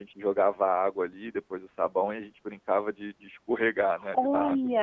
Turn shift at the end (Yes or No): Yes